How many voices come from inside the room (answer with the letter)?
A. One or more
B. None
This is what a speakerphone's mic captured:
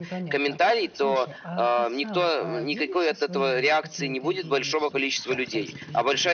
A